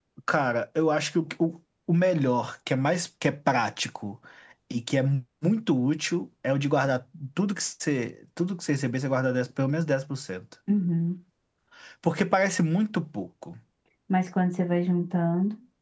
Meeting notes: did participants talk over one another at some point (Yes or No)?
No